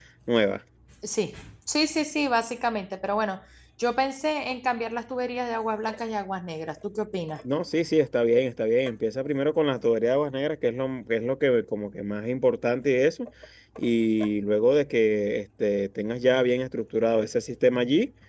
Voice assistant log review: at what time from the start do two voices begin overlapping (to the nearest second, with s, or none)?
none